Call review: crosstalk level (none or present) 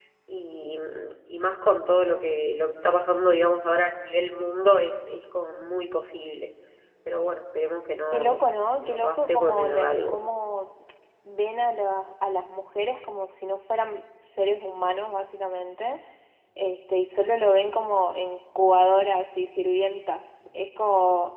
present